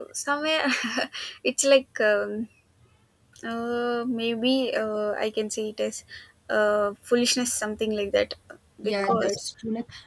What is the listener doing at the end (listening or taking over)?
taking over